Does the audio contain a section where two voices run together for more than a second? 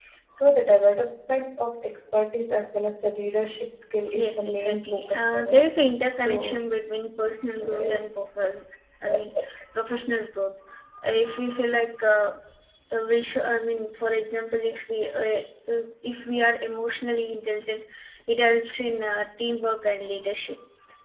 Yes, from 4.1 s

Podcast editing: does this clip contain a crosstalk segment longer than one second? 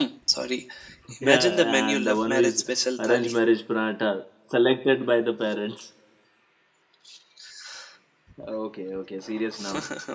Yes, from 1.2 s

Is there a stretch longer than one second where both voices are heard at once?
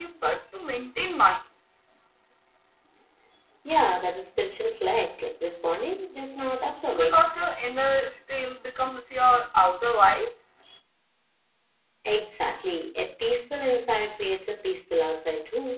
No

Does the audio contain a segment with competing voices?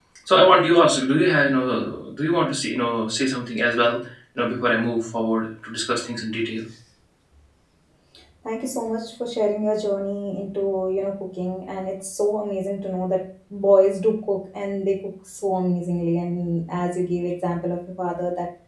No

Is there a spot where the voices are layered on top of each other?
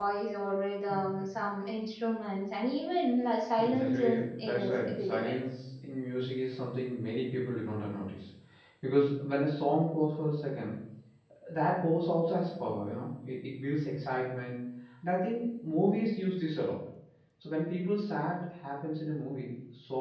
Yes, from 3.6 s

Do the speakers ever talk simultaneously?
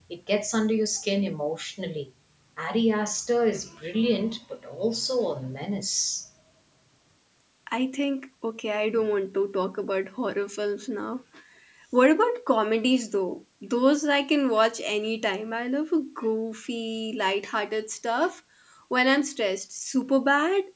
No

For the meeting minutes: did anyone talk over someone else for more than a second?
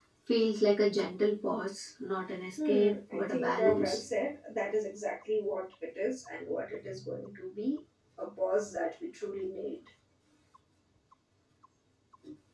Yes, from 2.6 s

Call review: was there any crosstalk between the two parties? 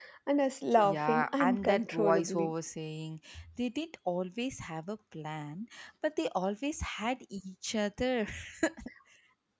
Yes, from 0.8 s

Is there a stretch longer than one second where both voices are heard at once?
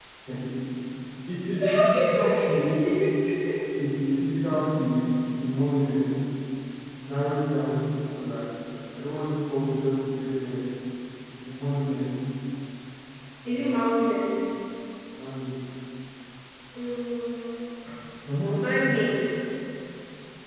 Yes, from 1.5 s

